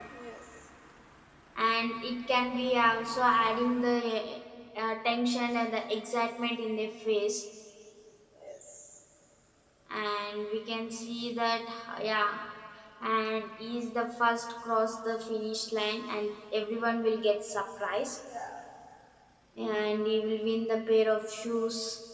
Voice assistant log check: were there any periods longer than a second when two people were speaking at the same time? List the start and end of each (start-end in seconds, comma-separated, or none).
none